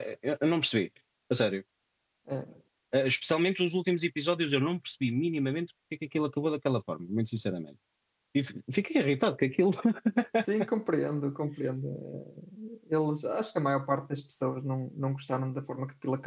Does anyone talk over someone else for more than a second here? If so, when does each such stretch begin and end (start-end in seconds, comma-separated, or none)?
none